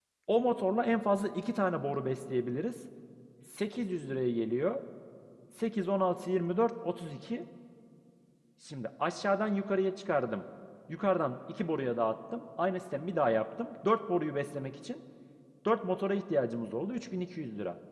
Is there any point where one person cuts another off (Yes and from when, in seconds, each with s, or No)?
No